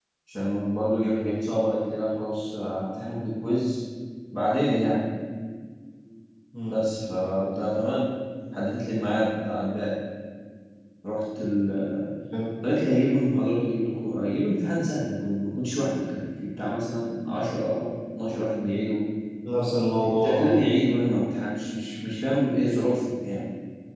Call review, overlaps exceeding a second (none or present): none